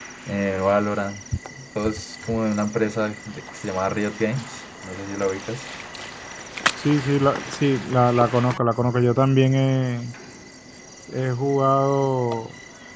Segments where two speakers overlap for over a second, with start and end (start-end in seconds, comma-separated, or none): none